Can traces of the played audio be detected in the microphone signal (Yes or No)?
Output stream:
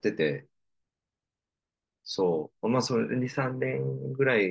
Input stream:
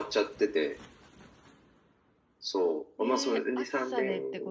Yes